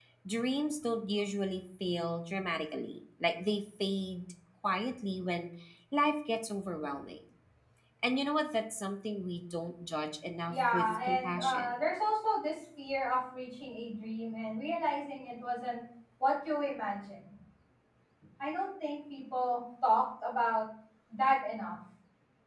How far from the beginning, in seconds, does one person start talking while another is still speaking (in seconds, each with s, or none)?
10.4 s